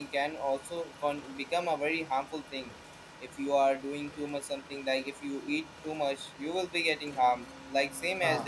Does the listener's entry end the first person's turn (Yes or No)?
No